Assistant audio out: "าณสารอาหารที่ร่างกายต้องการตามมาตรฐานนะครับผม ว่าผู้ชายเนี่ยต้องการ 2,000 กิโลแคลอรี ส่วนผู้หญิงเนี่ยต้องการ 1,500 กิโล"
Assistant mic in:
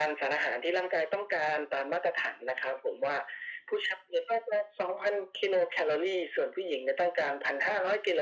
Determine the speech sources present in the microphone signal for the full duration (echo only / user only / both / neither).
echo only